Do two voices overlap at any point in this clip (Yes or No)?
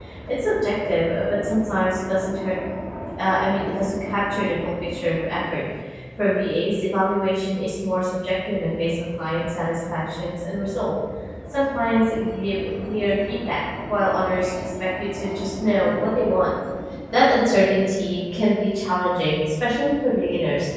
No